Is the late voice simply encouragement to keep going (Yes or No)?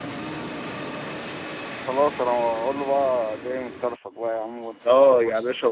No